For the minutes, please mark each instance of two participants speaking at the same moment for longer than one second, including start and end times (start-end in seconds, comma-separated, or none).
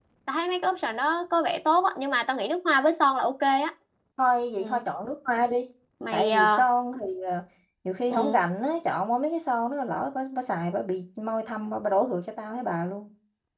none